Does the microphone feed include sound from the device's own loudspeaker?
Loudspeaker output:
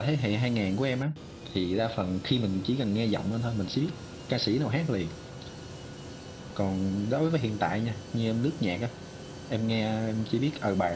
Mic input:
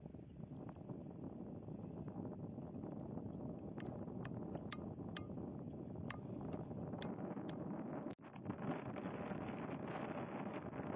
No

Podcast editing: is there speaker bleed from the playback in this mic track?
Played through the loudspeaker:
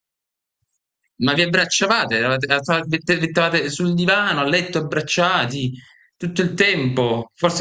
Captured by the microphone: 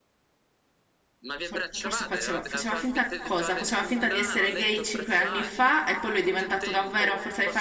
Yes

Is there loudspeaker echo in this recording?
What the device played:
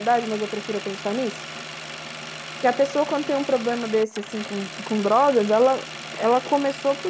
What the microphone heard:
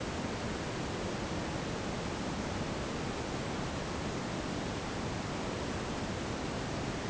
No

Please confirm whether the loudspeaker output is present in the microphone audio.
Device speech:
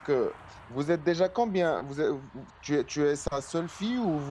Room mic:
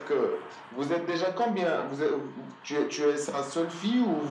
Yes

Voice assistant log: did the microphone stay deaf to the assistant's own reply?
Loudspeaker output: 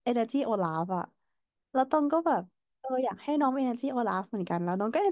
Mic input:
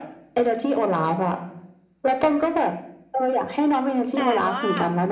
No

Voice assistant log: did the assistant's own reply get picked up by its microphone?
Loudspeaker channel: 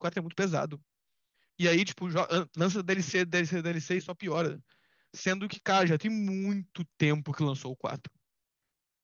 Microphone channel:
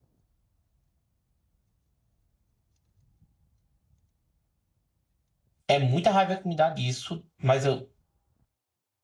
No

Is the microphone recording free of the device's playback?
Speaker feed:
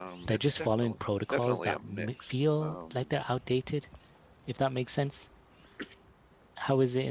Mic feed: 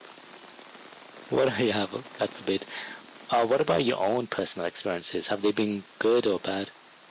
Yes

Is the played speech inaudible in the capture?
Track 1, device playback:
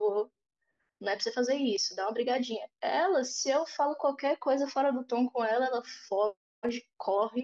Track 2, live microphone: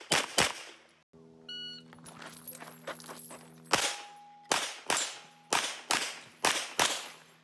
Yes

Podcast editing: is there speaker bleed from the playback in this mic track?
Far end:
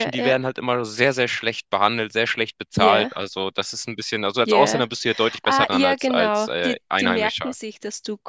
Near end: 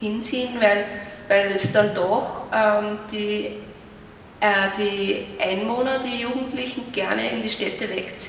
No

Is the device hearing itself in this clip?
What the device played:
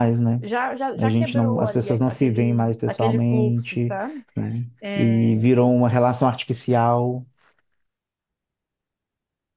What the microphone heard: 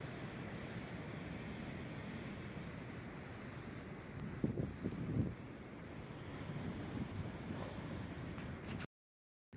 No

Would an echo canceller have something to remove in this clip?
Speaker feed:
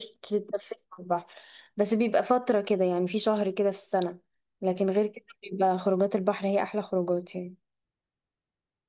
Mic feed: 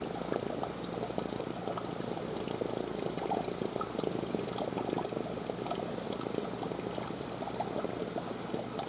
No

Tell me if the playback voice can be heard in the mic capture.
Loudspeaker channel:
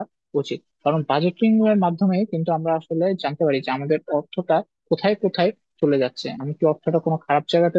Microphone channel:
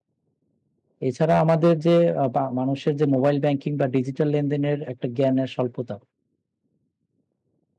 No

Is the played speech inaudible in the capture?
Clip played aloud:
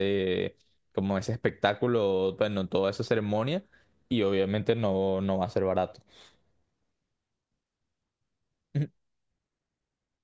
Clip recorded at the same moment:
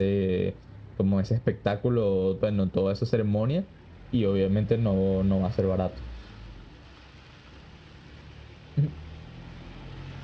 No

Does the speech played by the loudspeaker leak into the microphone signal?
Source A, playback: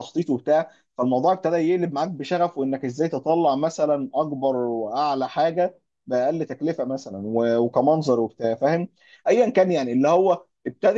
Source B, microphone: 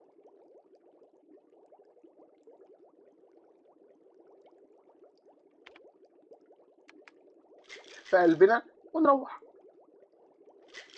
No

